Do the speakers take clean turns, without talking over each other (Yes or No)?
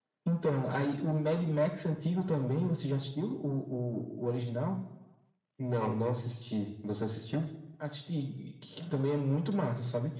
Yes